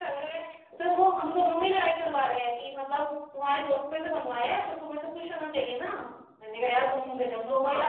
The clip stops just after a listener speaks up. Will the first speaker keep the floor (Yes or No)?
No